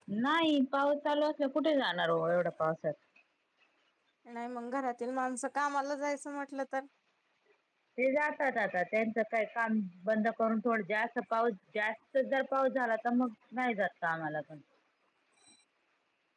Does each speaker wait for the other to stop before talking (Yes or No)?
Yes